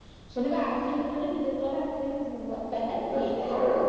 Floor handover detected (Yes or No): Yes